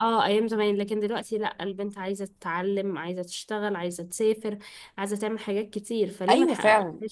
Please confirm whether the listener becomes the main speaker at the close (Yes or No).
Yes